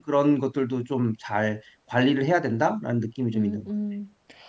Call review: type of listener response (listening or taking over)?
taking over